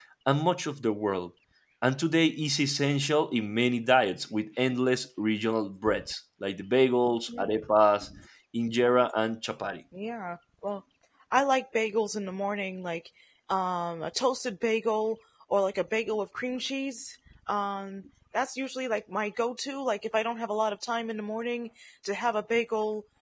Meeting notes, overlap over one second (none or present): none